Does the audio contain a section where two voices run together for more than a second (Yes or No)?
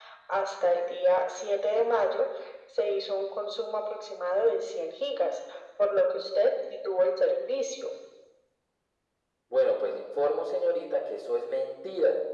No